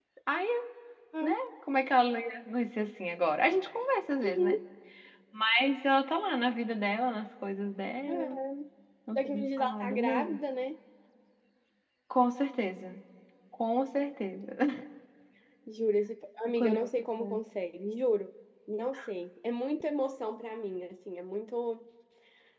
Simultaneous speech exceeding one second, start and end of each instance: 9.2-10.4

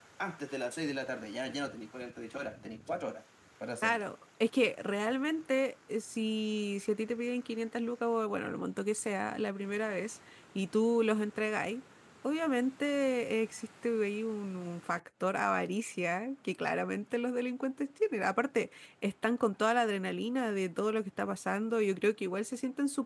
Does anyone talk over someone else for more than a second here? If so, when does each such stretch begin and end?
none

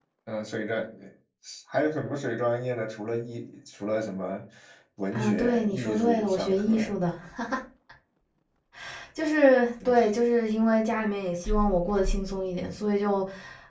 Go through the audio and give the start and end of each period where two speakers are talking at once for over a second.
5.1-6.7

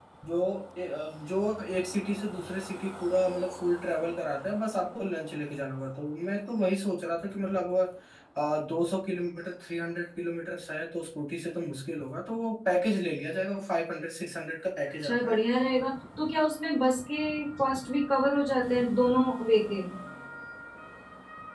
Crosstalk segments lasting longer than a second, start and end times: none

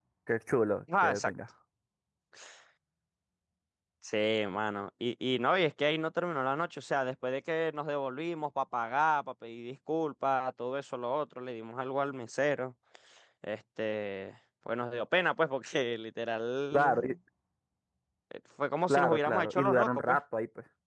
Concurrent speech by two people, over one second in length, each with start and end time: 18.9-20.2

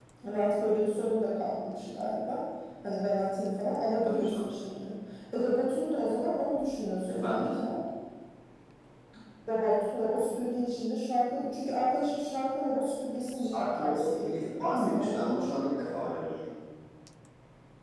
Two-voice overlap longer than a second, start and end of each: 13.5-15.6

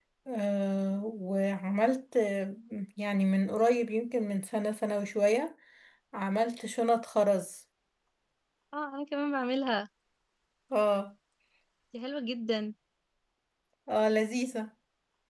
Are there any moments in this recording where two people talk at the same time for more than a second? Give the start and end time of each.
none

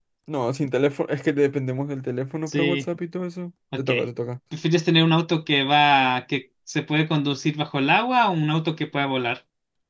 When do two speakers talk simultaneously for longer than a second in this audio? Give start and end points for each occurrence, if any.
none

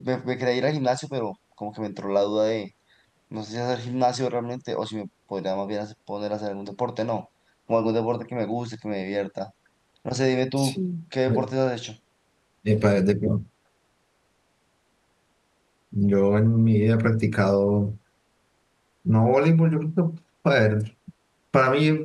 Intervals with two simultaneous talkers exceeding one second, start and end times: none

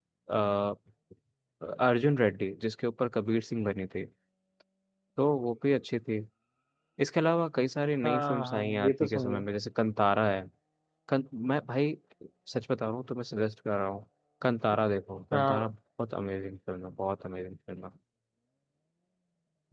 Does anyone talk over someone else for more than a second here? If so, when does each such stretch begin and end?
8.1-9.4

